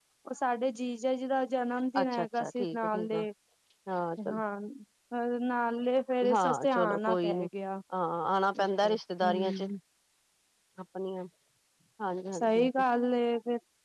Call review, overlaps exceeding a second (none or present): present